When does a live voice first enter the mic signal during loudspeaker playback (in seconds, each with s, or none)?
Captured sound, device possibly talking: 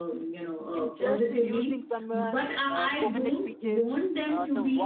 0.8 s